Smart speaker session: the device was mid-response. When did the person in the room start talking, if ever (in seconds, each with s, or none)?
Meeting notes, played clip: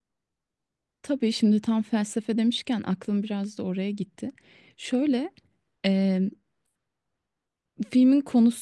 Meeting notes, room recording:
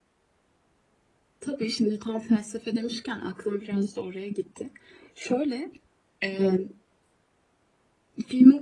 none